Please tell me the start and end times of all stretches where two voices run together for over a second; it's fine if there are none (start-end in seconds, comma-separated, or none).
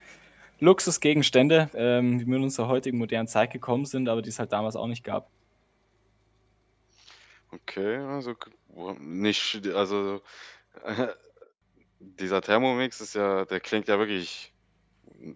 none